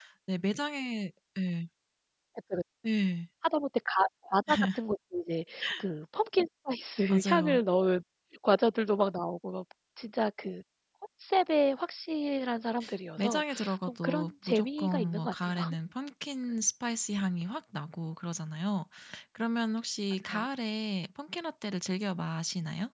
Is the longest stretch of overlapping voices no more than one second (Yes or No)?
No